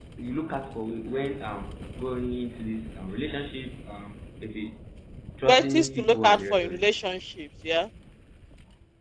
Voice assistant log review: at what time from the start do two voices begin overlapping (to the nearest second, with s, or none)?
5 s